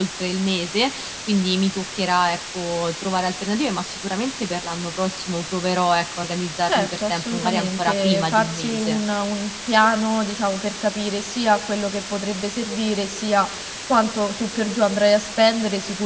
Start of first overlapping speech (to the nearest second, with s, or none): 7 s